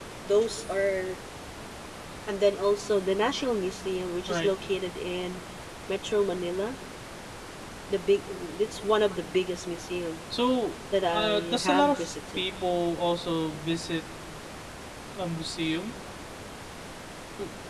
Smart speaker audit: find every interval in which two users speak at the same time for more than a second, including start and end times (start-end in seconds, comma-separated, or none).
11.0-12.4